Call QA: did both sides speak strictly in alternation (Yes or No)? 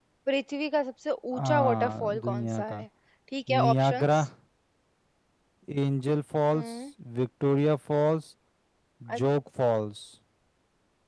No